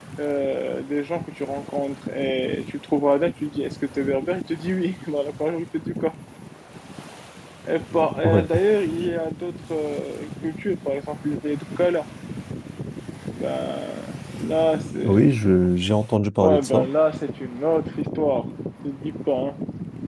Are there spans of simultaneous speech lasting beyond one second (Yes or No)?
No